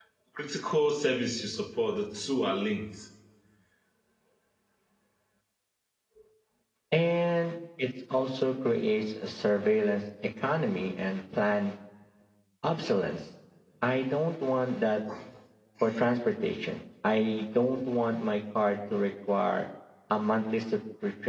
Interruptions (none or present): none